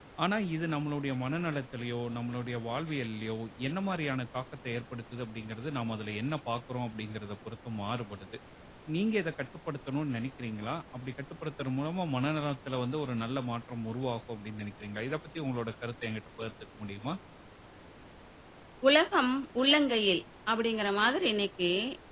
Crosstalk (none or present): none